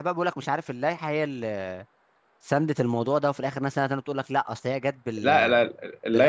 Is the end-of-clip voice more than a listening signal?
Yes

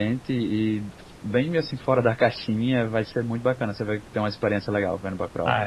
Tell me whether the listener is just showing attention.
No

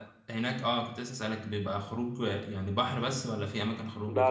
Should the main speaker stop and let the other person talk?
Yes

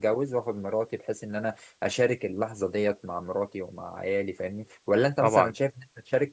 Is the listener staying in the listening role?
Yes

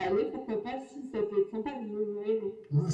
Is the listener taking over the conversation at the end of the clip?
Yes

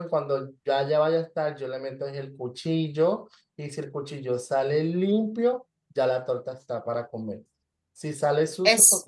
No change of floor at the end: Yes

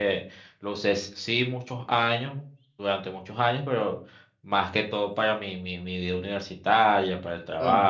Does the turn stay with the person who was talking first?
No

